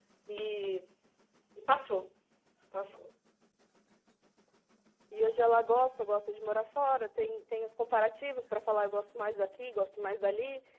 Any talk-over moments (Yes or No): No